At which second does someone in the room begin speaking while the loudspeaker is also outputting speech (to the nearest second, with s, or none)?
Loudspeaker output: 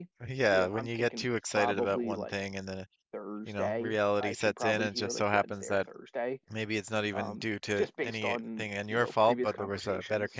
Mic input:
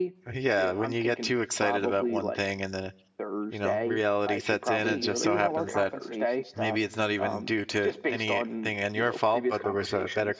5 s